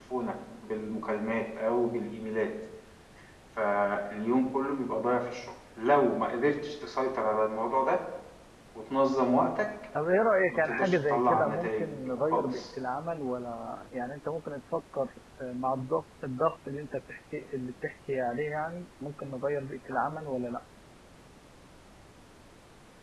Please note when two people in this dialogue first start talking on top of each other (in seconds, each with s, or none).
10.5 s